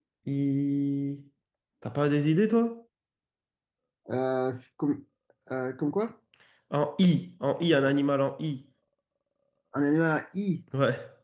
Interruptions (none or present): none